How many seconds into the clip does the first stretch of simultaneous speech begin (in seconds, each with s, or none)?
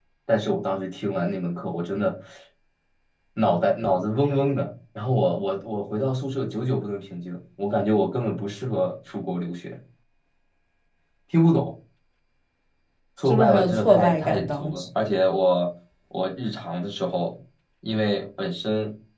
13.2 s